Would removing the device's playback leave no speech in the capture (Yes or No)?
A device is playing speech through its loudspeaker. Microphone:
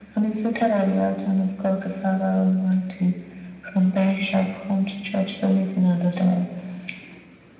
Yes